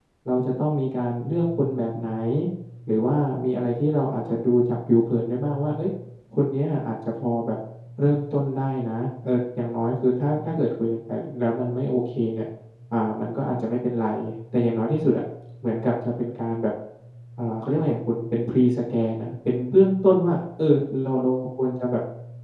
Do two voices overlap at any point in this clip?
No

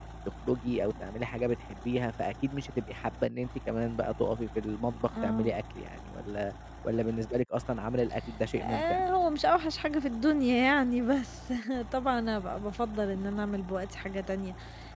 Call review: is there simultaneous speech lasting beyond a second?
No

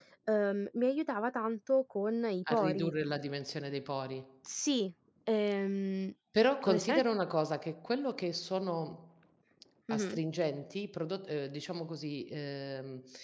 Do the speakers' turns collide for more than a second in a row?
No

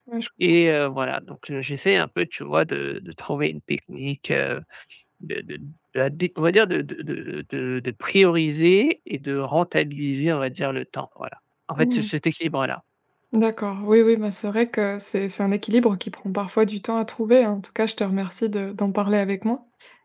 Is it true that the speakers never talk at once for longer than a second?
Yes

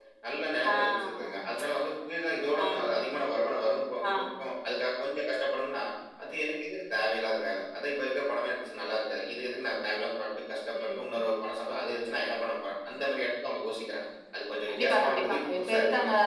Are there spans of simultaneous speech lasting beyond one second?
Yes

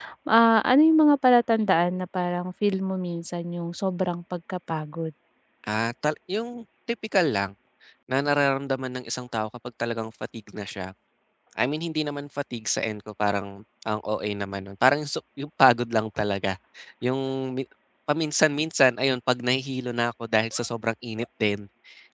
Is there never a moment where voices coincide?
Yes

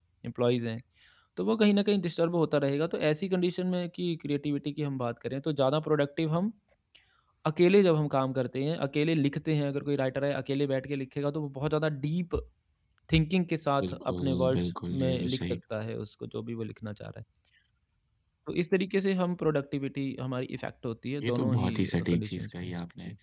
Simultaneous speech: Yes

